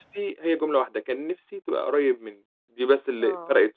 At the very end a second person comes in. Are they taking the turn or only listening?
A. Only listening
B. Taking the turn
A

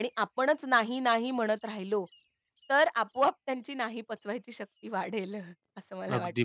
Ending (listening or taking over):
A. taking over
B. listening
A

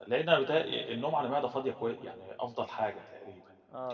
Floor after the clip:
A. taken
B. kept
B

